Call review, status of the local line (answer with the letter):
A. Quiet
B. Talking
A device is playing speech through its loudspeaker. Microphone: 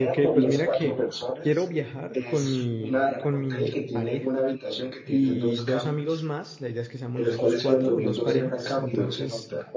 B